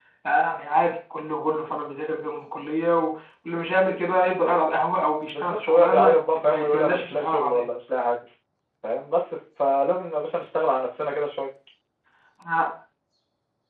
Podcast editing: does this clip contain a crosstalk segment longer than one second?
Yes, from 5.3 s

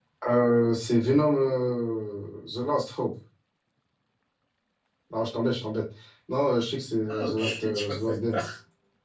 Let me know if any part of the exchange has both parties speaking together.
Yes, from 7.1 s

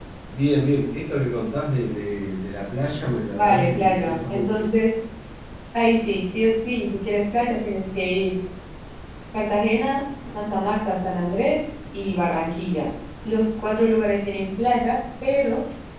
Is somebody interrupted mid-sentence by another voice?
Yes, from 3.3 s

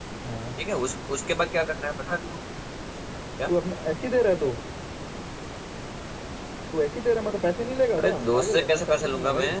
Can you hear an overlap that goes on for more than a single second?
Yes, from 8.0 s

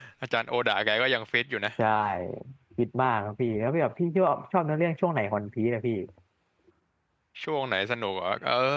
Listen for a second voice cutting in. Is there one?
No

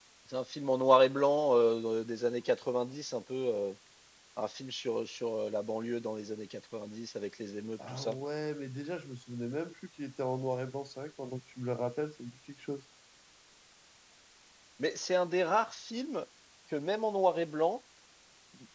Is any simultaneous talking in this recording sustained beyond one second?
No

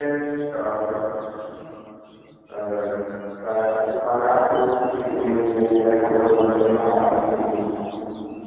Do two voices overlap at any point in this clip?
Yes, from 4.9 s

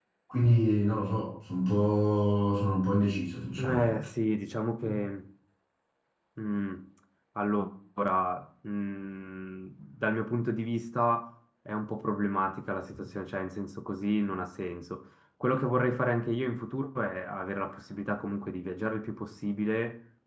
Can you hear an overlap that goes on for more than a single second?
No

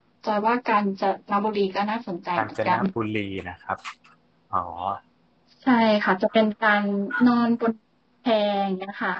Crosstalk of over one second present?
No

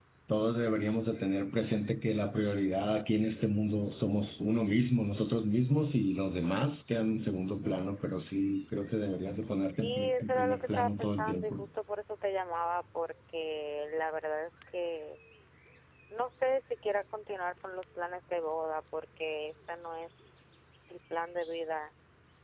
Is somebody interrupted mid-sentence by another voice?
Yes, from 9.7 s

